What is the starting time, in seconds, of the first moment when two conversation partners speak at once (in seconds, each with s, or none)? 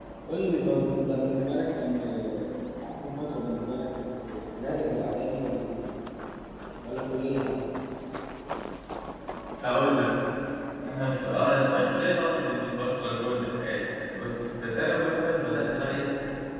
none